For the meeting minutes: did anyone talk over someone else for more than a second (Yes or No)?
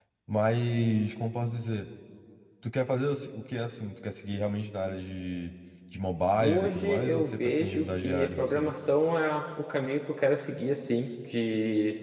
Yes